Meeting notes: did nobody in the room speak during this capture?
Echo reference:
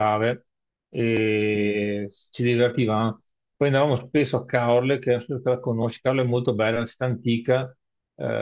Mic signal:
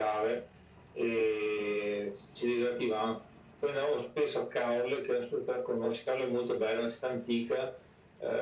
Yes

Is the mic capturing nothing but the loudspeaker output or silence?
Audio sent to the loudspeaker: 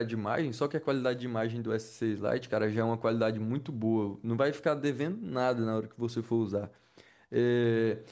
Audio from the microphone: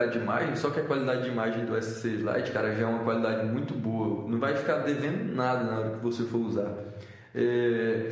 Yes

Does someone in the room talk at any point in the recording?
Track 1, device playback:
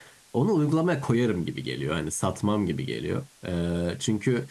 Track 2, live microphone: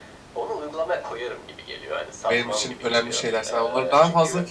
Yes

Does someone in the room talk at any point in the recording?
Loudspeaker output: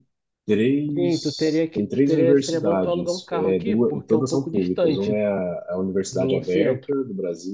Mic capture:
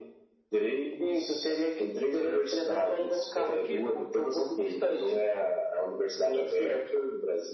No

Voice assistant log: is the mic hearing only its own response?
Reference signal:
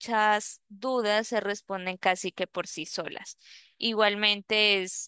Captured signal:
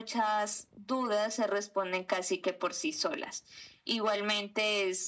Yes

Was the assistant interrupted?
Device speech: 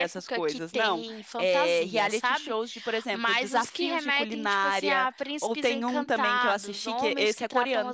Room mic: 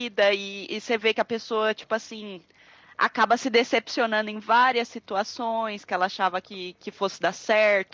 Yes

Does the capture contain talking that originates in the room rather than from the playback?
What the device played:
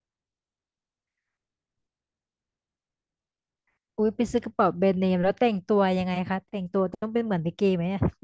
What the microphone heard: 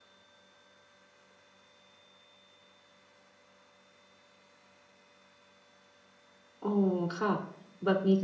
Yes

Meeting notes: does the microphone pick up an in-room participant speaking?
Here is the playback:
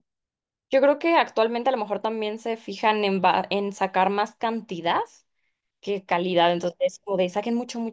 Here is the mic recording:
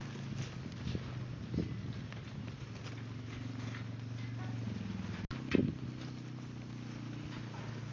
No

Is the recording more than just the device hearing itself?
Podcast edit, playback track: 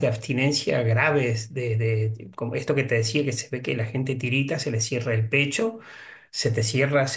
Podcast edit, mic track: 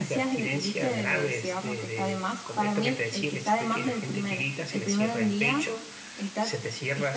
Yes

